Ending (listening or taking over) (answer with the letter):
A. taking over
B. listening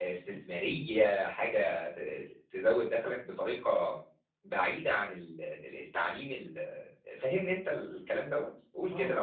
A